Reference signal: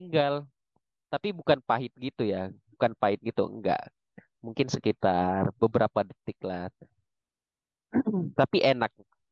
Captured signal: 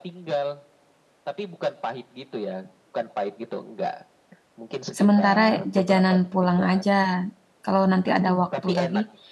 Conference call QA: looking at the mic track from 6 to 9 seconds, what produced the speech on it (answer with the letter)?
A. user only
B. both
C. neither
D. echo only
B